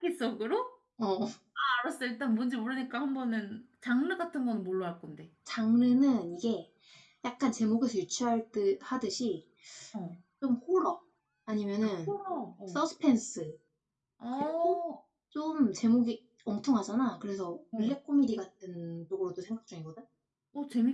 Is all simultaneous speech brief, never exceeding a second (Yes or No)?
Yes